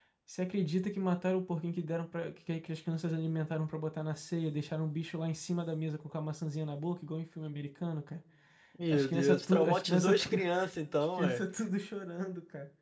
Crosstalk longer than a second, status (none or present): present